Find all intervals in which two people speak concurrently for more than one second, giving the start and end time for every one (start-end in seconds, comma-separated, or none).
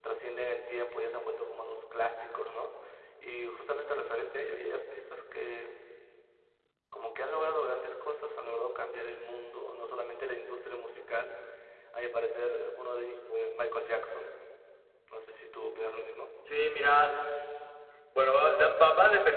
none